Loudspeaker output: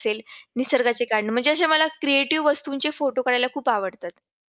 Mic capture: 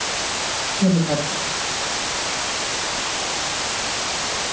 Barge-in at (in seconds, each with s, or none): 0.8 s